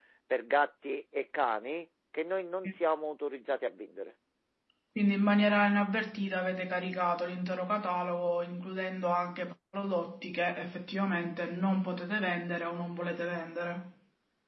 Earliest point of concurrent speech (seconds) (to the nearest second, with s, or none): none